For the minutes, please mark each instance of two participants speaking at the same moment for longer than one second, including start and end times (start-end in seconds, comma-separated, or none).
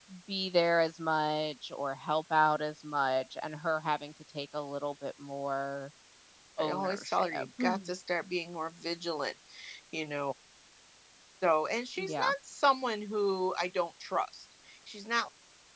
6.6-7.9